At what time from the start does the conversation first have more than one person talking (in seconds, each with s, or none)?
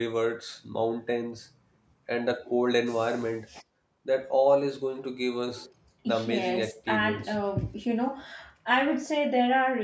6.1 s